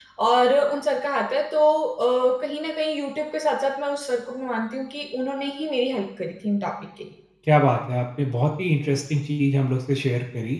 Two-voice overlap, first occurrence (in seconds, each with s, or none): none